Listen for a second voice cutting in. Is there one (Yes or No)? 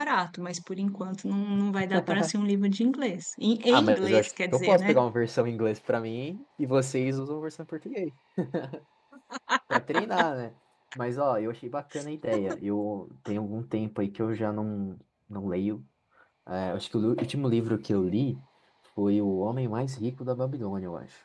Yes